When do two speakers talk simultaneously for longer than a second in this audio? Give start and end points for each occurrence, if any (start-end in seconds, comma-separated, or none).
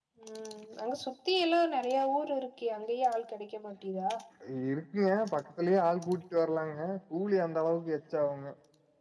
none